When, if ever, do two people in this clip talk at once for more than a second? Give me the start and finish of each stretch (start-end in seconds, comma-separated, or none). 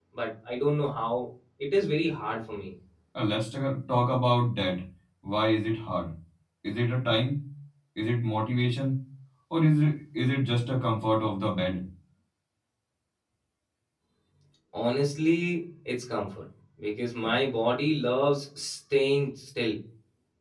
none